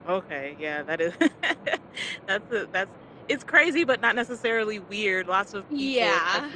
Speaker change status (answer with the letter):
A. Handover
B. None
B